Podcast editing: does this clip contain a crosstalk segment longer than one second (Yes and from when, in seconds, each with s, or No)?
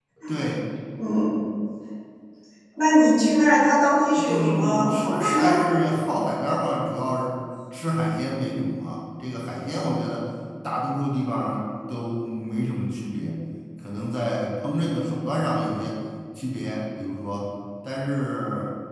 Yes, from 4.2 s